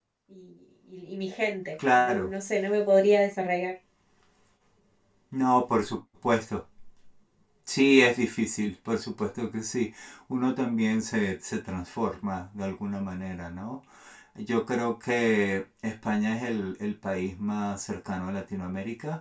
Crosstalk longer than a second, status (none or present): none